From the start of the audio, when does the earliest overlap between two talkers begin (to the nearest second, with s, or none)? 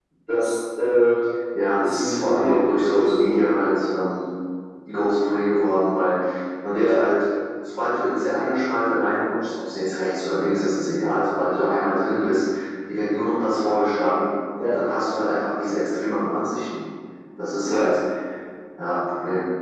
2 s